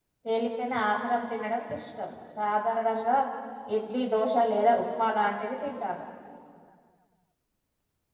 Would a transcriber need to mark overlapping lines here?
No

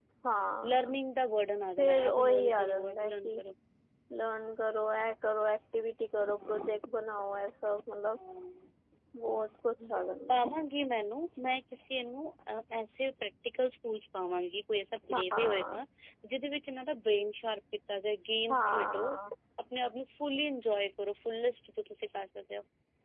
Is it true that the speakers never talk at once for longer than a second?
No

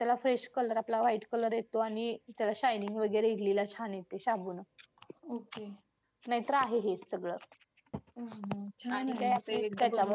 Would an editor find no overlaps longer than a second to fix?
No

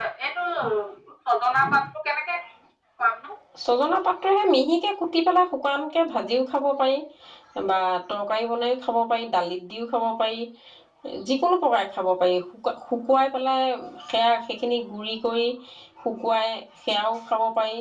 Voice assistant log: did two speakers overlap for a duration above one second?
No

